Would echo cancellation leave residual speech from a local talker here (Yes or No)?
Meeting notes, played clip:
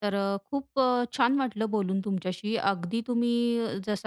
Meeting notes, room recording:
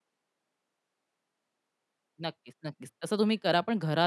Yes